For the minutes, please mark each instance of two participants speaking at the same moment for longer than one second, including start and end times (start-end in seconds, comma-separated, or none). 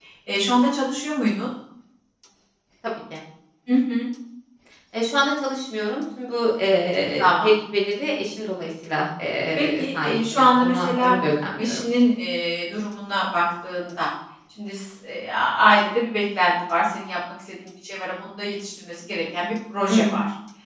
9.6-11.8